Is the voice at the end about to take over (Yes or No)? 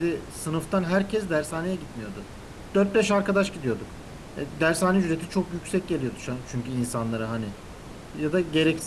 No